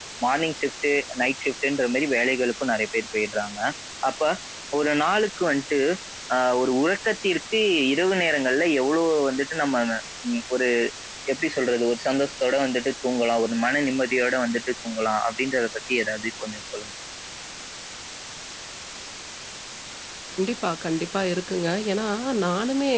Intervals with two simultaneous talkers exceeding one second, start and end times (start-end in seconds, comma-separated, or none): none